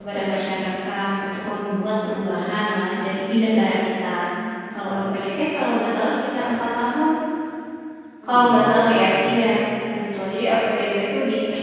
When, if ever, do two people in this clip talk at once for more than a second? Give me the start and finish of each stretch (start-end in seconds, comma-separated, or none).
8.2-9.6